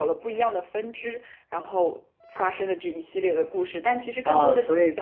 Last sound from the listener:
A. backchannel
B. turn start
B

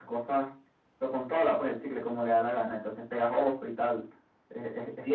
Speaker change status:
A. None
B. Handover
B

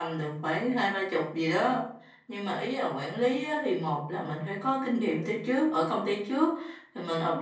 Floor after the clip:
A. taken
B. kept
B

